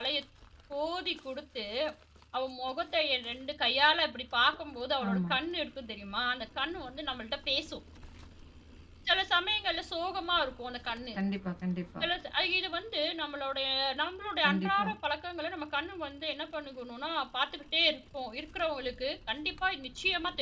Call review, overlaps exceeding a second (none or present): none